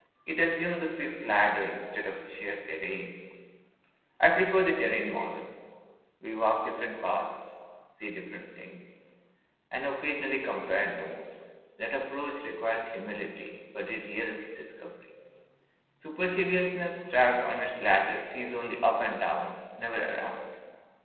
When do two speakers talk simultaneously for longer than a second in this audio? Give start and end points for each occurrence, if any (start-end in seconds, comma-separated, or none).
none